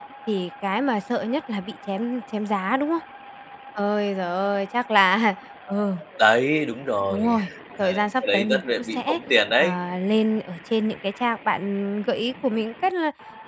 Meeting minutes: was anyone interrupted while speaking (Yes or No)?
Yes